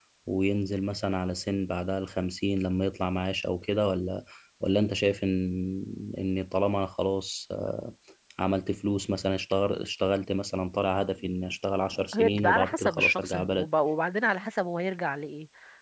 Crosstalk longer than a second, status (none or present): present